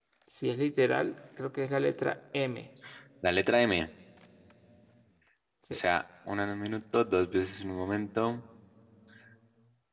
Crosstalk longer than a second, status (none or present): none